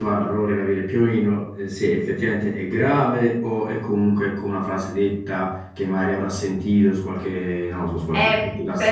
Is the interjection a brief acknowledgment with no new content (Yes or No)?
No